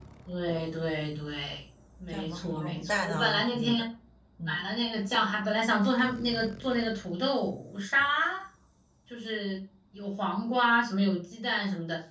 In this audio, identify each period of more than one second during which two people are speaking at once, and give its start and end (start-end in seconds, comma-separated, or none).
2.1-3.8